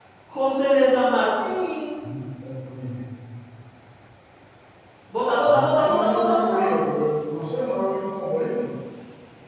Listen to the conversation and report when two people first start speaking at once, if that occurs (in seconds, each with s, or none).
5.5 s